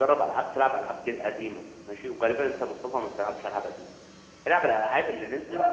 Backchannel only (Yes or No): Yes